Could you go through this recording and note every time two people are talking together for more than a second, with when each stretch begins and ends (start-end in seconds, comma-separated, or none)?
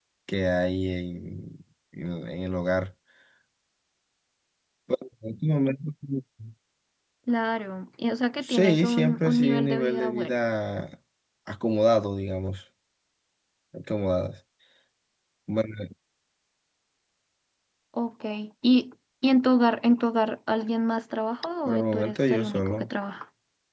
8.4-10.4, 21.7-22.9